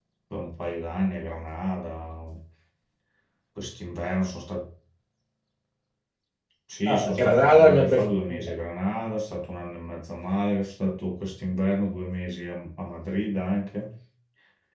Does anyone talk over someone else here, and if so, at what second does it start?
6.9 s

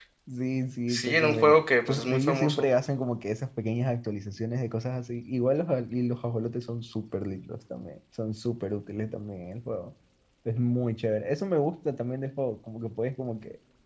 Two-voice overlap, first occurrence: 0.9 s

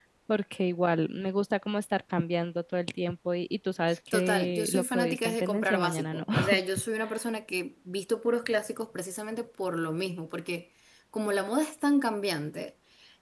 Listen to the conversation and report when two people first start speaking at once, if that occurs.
4.1 s

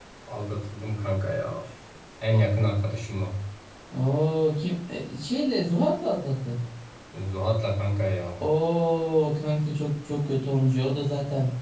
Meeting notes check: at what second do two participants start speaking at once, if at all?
none

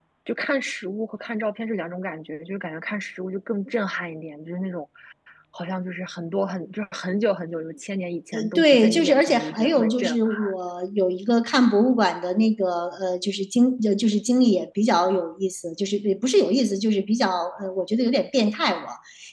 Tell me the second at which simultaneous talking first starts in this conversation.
8.3 s

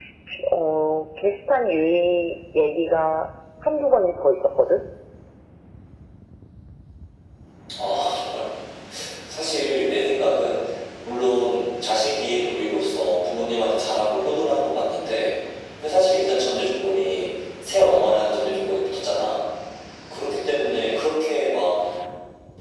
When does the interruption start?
none

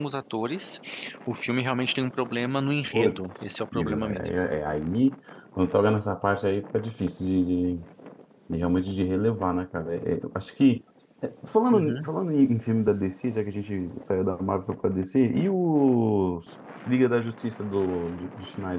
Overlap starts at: 2.9 s

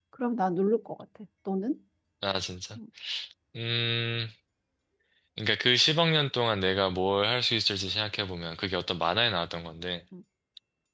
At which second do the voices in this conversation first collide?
none

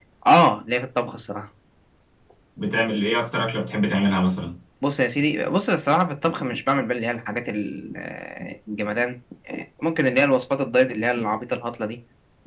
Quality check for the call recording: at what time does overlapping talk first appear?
none

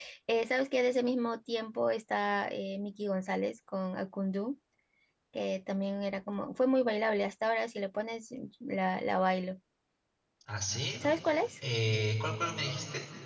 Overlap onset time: none

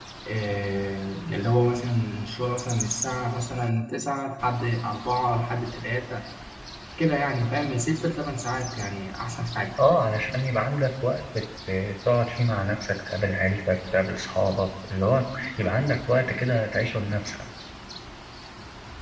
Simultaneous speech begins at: none

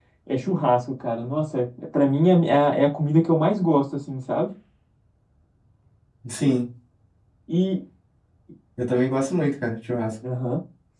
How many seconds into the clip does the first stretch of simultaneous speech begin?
none

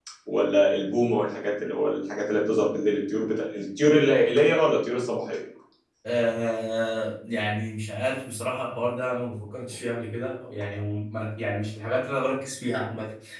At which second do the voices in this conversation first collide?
none

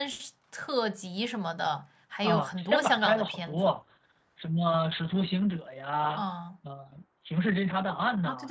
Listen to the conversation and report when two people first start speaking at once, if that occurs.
2.2 s

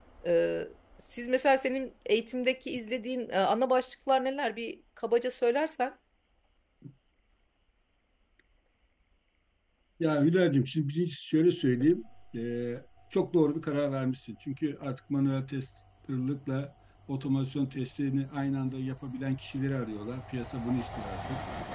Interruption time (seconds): none

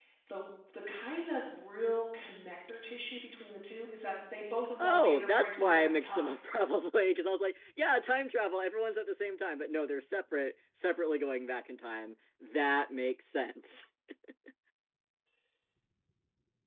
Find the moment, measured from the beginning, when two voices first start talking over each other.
4.8 s

